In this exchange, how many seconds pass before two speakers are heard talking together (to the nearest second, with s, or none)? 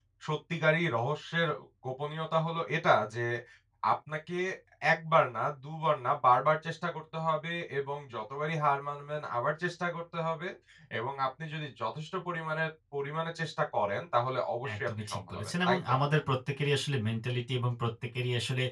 15 s